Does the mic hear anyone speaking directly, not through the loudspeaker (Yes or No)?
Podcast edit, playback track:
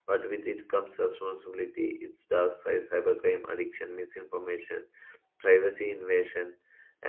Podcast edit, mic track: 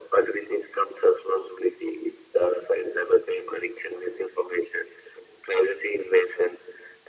No